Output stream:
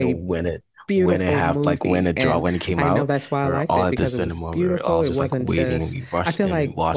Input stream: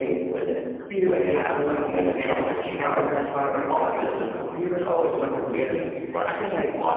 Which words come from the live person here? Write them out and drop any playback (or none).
none